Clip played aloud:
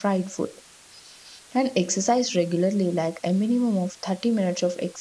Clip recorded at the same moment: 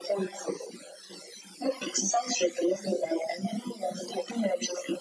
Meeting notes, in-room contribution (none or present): none